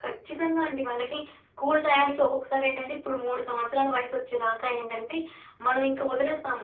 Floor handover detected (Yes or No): No